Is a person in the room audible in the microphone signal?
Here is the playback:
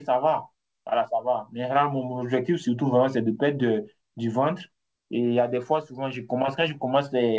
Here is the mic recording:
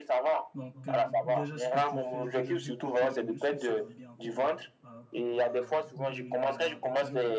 Yes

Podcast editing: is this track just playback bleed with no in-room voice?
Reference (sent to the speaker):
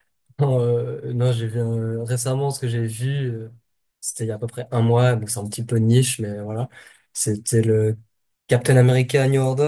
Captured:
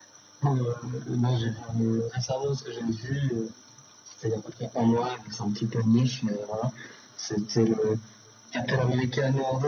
Yes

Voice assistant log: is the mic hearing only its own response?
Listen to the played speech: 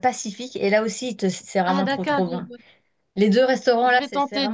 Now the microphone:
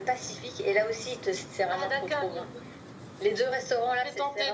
Yes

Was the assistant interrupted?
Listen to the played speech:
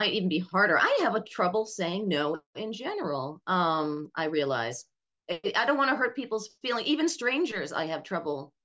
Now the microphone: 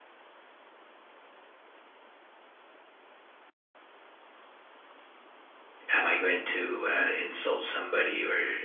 Yes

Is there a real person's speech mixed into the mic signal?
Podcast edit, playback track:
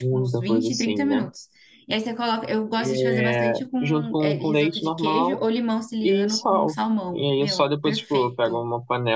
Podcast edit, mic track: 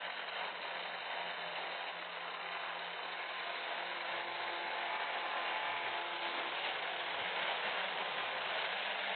No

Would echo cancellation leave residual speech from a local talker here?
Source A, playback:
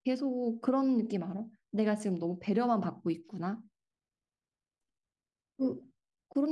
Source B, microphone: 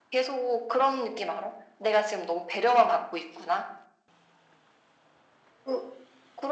No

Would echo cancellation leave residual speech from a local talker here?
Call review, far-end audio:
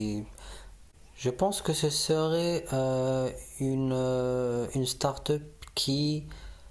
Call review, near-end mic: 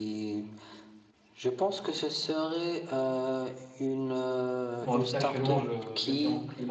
Yes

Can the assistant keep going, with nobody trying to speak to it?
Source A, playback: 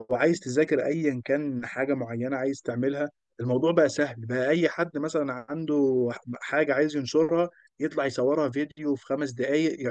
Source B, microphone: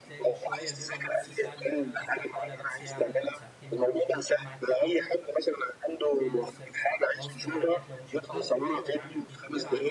No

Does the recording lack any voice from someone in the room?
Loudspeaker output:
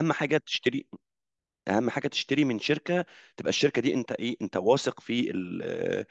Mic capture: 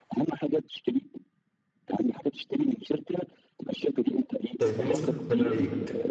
No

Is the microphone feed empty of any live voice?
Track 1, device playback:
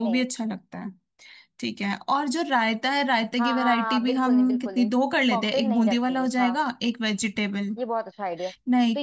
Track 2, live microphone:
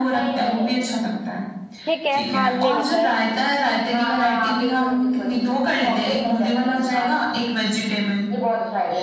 No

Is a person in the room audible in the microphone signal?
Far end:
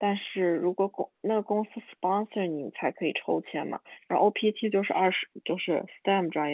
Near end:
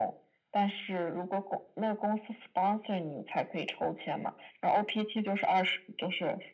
No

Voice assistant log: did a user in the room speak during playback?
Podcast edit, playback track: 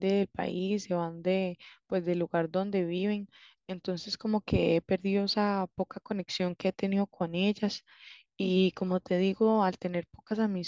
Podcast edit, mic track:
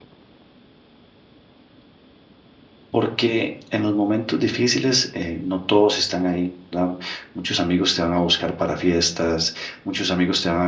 Yes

